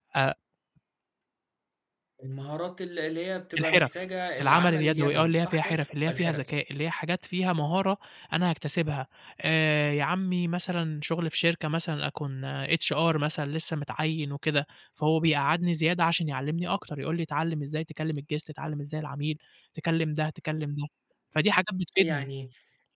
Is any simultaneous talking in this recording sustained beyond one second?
Yes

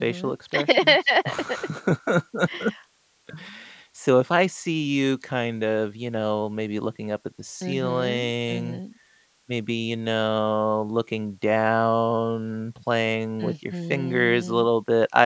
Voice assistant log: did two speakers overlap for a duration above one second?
Yes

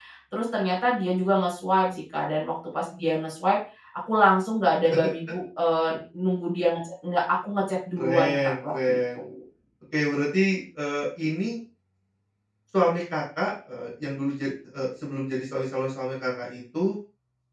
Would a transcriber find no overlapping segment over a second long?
No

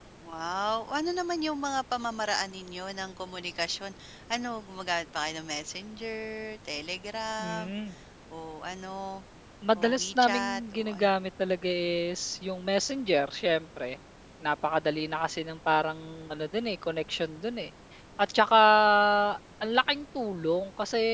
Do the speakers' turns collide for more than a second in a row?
Yes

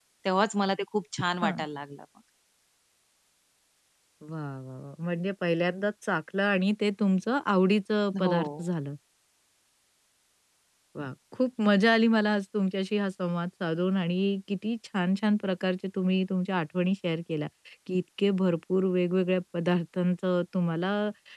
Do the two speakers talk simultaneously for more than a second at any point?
No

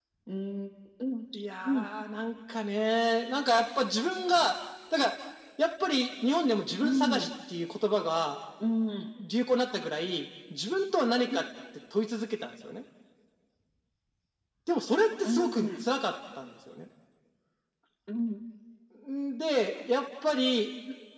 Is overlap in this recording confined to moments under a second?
Yes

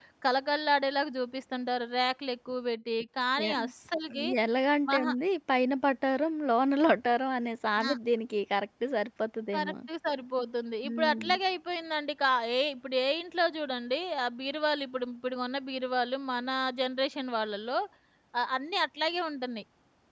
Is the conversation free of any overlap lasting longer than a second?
Yes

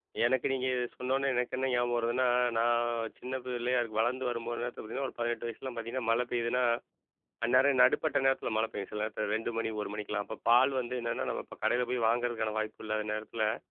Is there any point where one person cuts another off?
No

